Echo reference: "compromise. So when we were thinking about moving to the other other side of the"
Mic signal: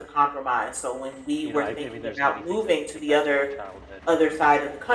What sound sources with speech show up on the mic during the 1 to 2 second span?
both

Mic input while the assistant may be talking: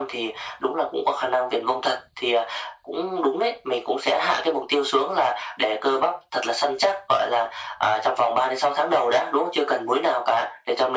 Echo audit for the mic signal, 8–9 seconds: echo only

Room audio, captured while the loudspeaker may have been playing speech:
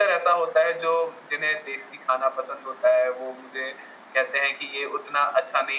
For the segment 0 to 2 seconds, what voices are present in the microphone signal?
echo only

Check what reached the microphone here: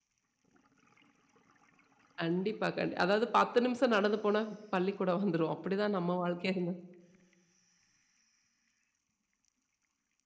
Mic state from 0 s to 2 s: neither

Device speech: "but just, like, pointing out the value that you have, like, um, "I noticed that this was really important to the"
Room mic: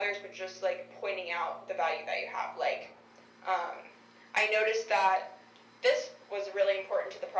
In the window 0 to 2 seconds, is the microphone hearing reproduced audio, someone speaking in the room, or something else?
echo only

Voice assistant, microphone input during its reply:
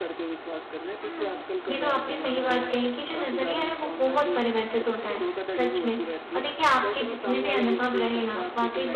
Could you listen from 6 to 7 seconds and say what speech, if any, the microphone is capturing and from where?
both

